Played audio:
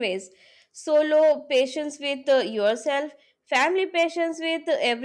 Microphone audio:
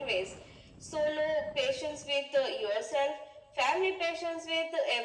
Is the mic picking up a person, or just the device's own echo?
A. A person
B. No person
B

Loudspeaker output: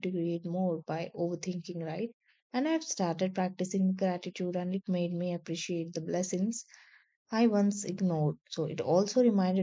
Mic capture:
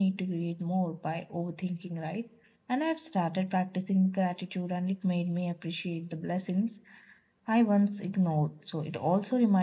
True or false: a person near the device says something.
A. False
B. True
A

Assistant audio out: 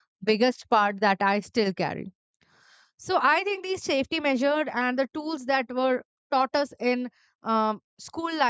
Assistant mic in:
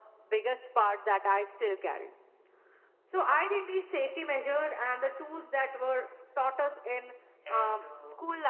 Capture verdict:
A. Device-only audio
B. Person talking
B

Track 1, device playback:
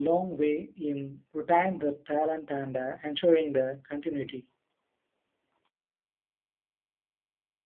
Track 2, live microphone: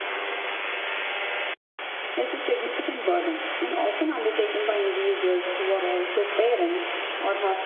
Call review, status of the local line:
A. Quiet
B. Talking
B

